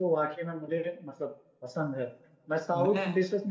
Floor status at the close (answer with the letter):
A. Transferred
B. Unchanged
B